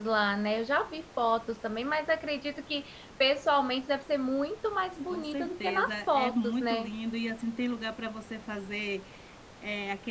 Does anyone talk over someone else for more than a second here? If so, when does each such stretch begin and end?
5.1-6.9

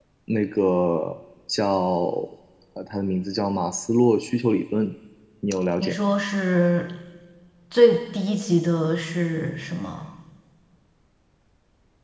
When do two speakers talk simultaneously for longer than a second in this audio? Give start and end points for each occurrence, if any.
none

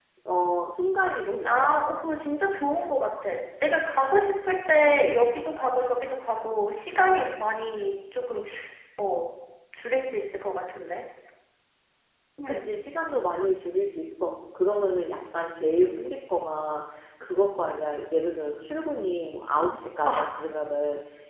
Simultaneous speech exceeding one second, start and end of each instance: none

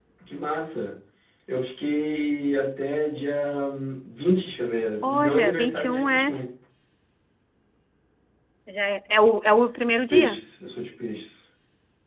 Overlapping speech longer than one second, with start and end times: 5.0-6.3

